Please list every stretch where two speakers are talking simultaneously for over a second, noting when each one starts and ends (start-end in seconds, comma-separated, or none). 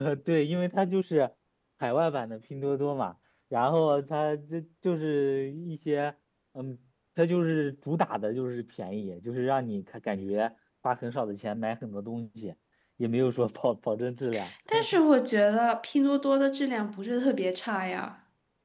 none